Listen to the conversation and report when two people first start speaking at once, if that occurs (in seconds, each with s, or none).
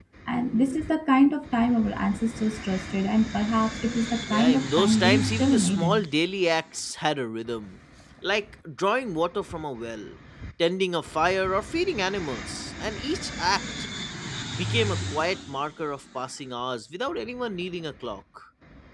4.3 s